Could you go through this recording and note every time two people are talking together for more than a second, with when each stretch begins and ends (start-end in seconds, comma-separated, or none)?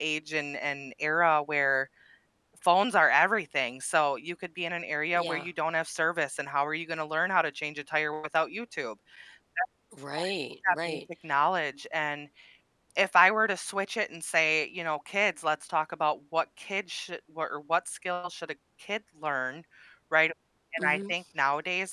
none